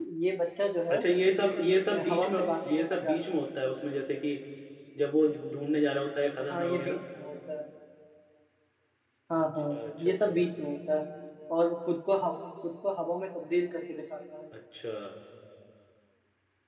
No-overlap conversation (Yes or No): No